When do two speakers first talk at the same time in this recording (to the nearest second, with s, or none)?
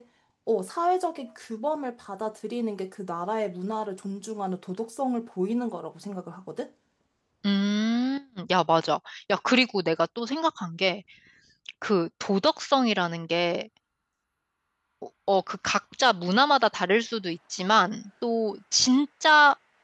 none